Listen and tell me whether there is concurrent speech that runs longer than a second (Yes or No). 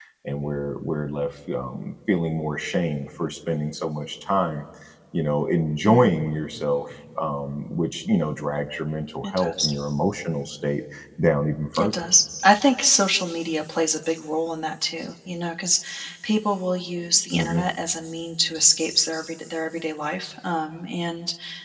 No